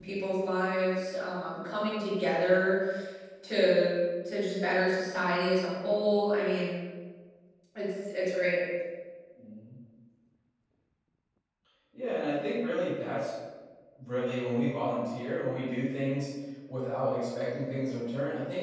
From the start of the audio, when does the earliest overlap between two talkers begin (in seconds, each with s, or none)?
none